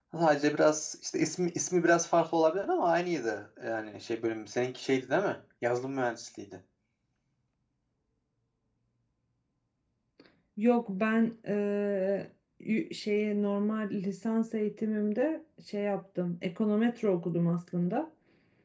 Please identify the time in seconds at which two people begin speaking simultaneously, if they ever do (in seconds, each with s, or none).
none